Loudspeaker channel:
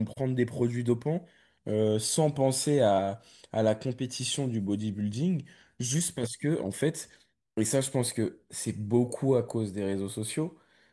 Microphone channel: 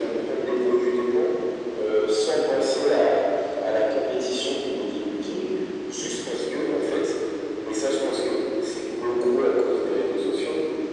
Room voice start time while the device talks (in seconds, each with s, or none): none